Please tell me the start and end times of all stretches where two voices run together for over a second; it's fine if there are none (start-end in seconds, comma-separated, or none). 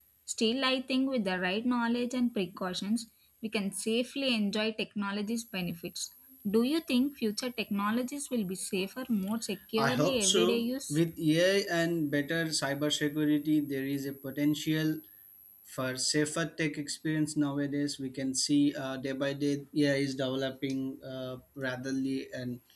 9.8-11.0